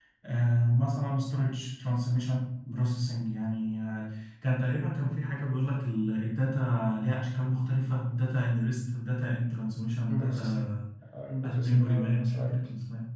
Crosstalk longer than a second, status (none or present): present